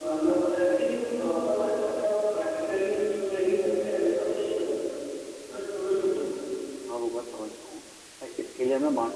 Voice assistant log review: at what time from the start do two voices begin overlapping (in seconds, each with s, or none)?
none